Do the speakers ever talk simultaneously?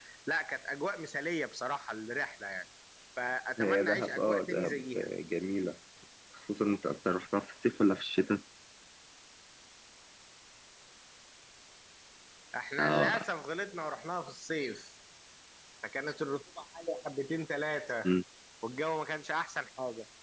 Yes, from 3.6 s

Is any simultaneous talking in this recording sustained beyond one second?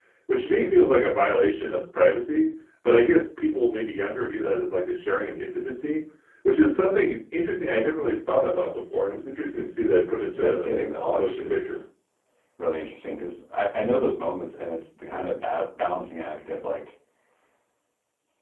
Yes, from 10.3 s

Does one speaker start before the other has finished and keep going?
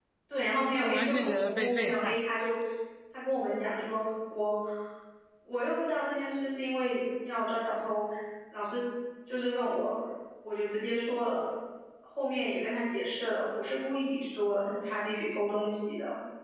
Yes, from 0.8 s

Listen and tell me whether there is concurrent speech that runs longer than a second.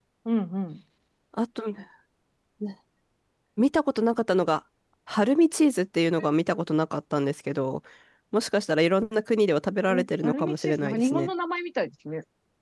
Yes, from 9.9 s

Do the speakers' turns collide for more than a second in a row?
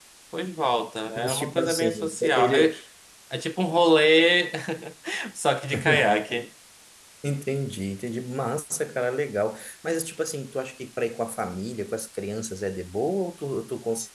Yes, from 1.2 s

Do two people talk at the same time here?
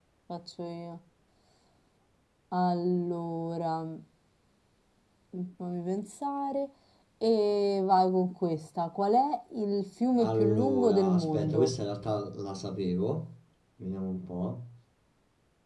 Yes, from 10.2 s

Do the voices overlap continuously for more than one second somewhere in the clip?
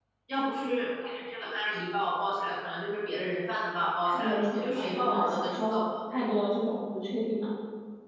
Yes, from 4.0 s

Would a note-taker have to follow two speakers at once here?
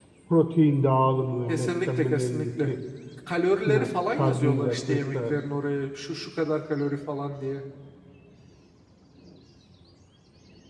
Yes, from 1.5 s

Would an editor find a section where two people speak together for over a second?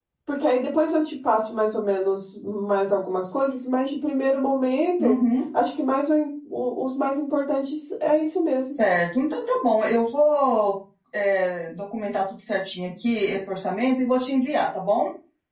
No

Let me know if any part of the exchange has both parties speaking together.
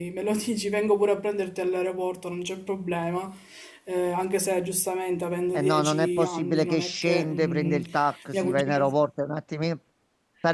Yes, from 5.5 s

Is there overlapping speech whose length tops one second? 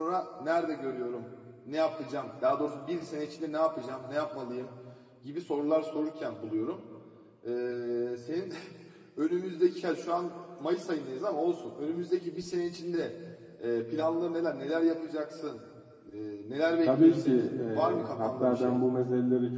Yes, from 16.9 s

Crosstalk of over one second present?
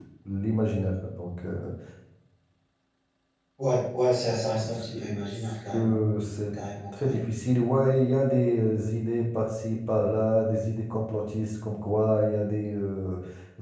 Yes, from 4.5 s

